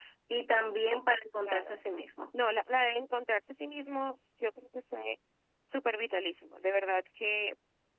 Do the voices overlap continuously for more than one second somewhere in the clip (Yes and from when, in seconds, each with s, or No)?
No